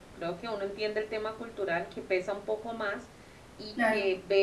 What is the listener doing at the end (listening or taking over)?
listening